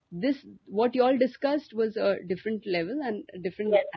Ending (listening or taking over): listening